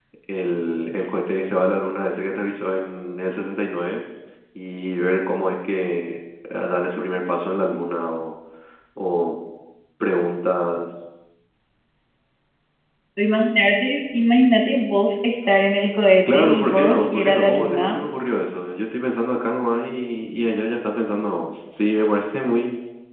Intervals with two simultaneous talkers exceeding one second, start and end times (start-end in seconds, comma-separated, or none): 16.3-18.0